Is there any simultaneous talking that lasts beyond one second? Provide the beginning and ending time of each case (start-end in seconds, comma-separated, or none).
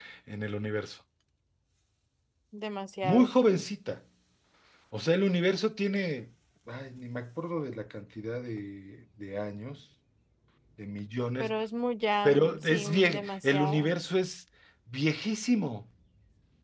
12.2-13.9